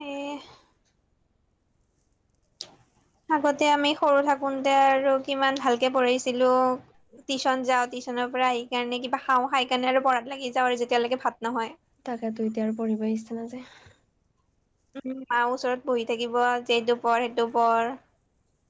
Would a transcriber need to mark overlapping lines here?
No

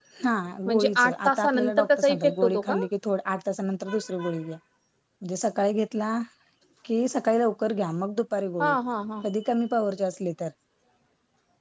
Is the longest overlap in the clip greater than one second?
Yes, from 0.7 s

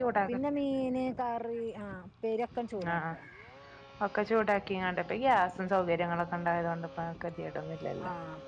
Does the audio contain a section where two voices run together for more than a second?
No

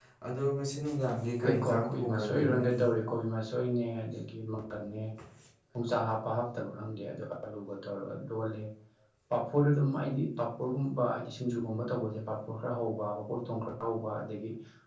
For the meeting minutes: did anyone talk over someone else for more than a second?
Yes, from 1.4 s

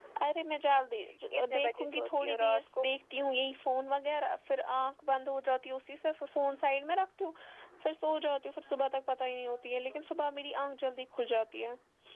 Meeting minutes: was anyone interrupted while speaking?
Yes, from 1.3 s

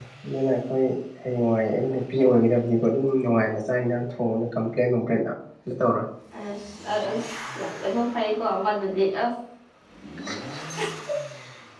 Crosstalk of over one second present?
No

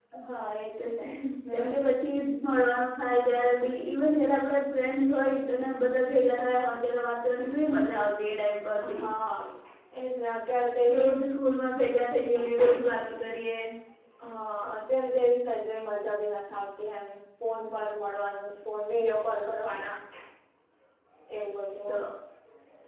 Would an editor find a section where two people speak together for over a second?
No

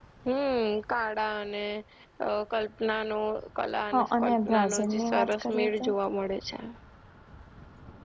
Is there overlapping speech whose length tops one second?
Yes, from 3.9 s

